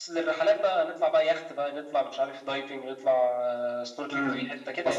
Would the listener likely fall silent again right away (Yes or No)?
No